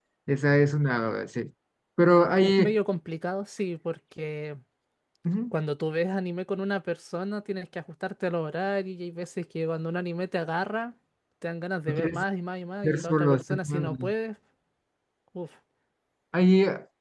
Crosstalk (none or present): present